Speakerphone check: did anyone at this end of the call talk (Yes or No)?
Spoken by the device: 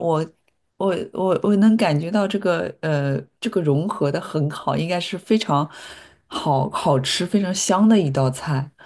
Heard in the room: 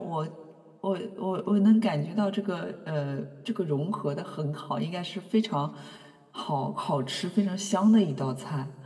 No